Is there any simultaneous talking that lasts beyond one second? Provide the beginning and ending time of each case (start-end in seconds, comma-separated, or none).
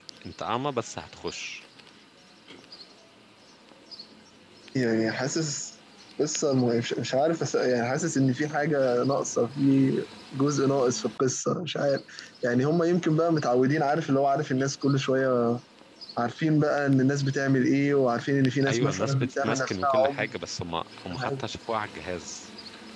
18.7-20.3